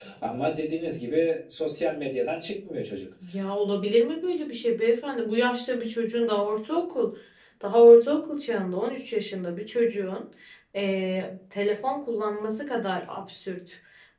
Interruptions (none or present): none